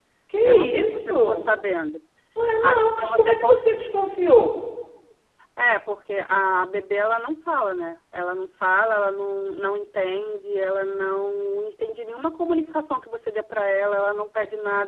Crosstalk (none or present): present